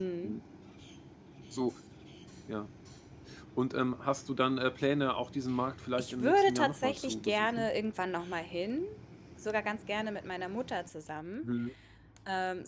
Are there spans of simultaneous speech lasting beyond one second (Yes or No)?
Yes